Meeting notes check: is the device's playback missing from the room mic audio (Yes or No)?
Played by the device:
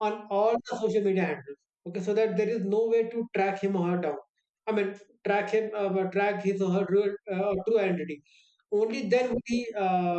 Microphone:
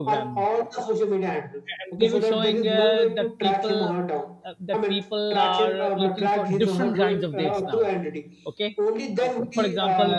No